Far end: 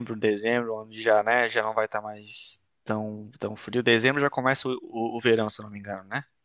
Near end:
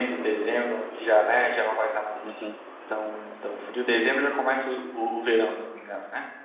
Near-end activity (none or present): present